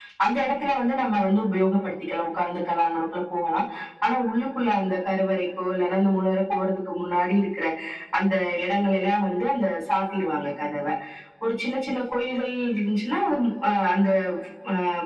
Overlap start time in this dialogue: none

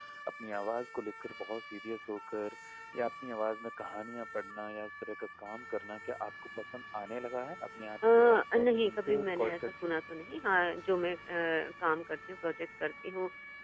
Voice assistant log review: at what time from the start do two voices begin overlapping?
8.0 s

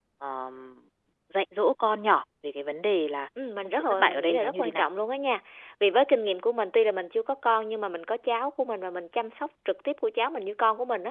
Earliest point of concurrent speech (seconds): 3.6 s

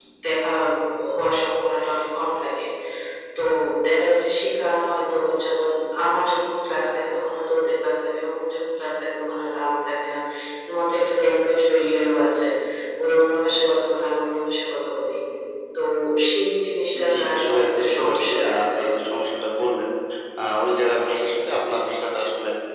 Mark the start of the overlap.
17.1 s

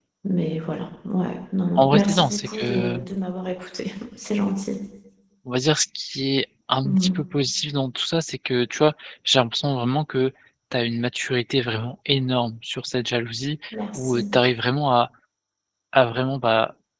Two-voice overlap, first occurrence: 1.8 s

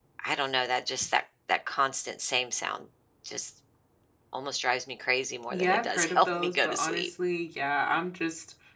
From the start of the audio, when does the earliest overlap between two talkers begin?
5.5 s

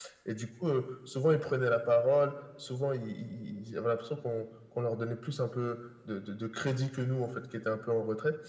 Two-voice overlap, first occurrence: none

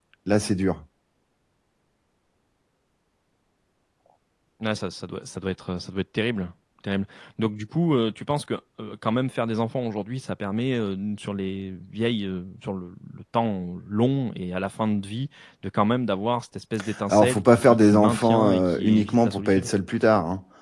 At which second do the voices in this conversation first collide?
17.1 s

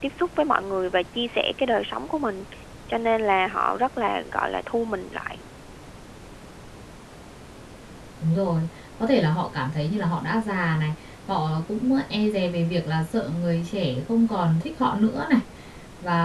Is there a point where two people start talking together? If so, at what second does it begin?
none

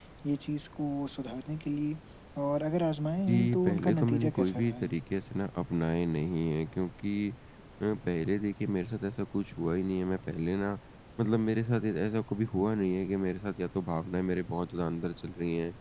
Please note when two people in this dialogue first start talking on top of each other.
3.2 s

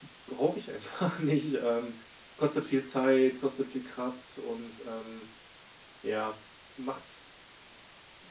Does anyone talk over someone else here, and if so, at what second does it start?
none

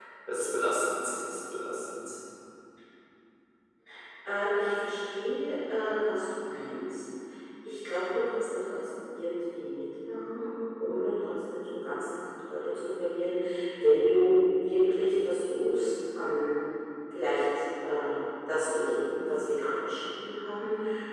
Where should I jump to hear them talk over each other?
none

